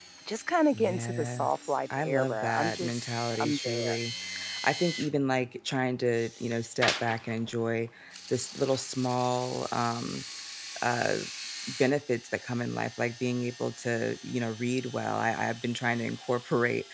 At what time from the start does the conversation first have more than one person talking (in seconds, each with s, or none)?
0.7 s